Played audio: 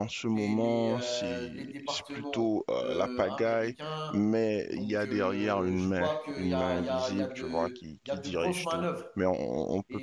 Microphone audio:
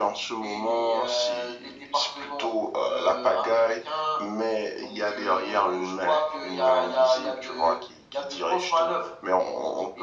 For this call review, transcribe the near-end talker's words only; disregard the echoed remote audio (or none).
none